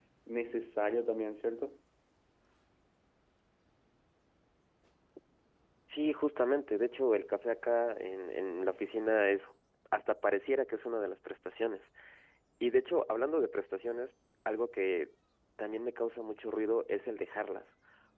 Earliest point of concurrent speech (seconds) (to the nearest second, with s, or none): none